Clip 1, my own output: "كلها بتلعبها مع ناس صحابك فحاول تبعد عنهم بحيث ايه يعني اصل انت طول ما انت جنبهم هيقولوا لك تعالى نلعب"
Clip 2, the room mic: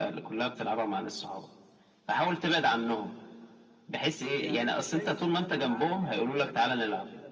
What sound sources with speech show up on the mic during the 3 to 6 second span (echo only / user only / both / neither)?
both